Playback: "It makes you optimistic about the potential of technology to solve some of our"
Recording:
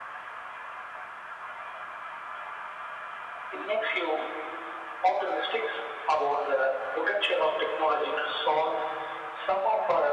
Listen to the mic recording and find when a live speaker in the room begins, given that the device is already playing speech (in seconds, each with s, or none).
none